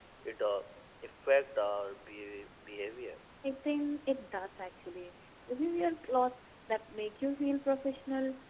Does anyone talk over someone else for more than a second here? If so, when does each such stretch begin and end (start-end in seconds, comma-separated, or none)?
none